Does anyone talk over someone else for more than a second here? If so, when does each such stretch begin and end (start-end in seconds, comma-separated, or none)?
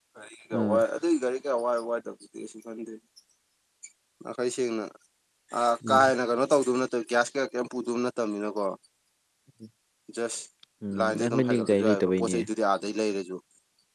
11.0-12.4